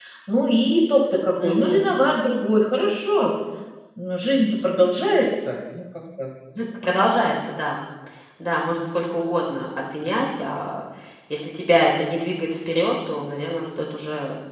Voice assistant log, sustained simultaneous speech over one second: none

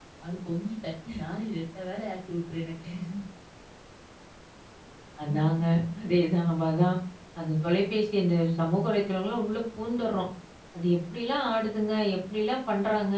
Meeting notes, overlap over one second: none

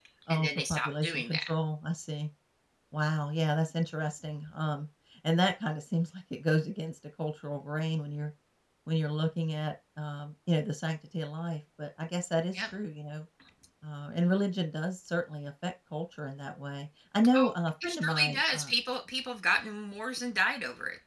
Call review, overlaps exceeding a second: present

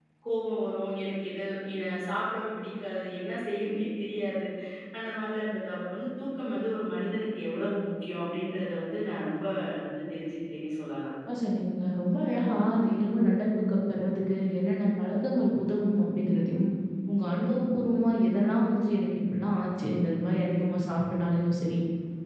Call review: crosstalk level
none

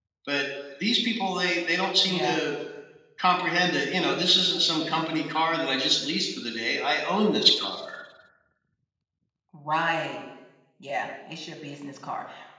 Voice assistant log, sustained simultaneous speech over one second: none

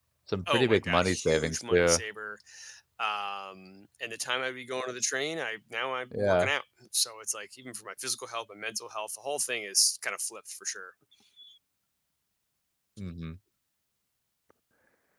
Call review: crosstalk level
present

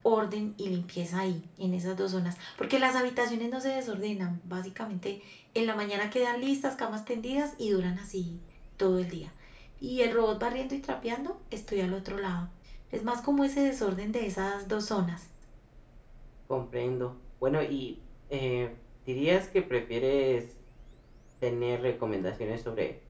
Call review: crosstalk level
none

